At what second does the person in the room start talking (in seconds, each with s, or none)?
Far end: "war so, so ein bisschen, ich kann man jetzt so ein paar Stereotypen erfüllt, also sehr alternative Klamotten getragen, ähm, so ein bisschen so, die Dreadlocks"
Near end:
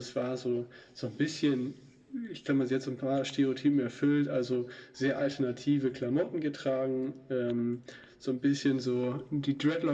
none